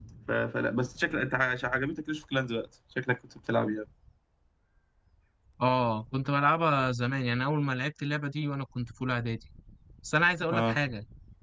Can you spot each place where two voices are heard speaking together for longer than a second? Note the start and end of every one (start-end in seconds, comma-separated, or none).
none